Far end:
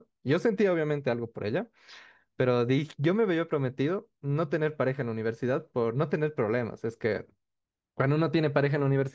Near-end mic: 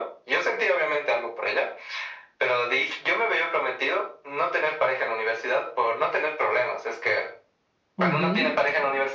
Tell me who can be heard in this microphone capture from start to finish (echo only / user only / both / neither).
both